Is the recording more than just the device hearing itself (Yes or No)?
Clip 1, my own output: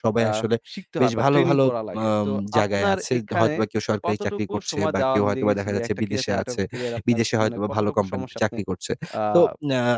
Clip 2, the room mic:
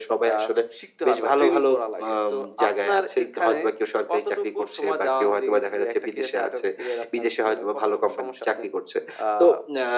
No